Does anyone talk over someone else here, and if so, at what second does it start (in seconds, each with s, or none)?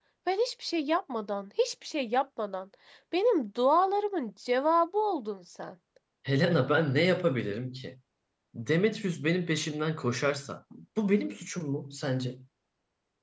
none